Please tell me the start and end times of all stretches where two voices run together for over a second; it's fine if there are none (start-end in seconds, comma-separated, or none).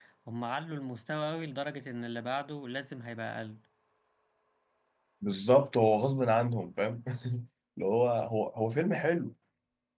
none